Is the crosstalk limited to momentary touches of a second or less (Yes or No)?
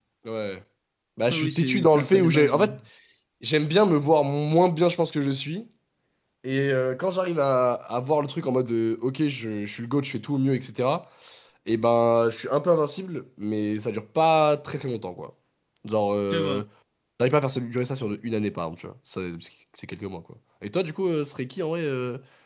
No